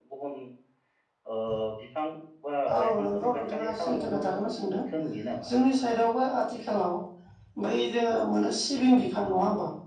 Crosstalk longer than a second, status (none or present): present